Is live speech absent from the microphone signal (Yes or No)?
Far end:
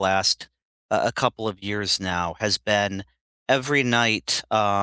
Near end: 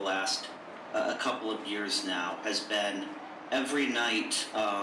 Yes